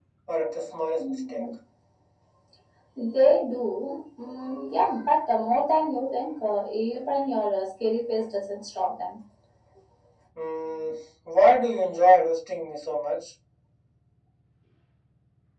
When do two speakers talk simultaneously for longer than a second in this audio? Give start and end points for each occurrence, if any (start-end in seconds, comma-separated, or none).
none